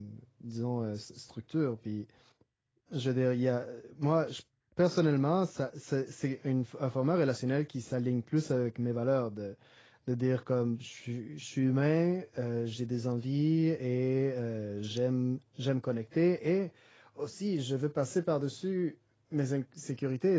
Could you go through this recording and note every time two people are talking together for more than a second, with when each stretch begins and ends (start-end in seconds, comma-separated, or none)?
none